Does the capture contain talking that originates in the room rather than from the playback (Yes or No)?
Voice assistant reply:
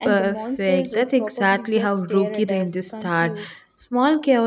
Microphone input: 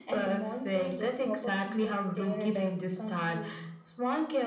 No